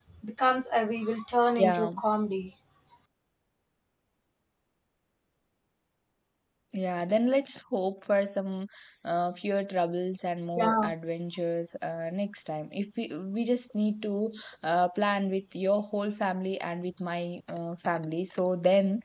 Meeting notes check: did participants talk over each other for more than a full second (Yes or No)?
No